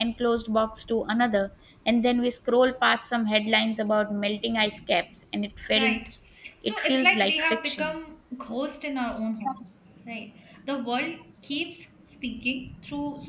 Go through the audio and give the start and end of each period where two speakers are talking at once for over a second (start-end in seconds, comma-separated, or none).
6.7-7.9